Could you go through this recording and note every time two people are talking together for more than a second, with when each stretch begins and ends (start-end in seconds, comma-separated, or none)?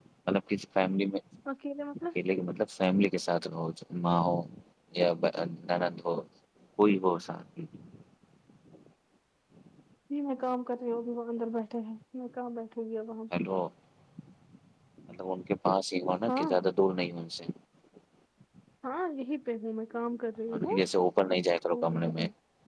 none